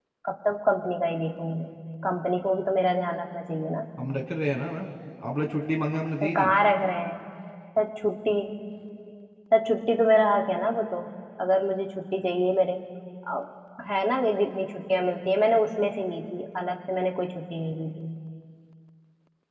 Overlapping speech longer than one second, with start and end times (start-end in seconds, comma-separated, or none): none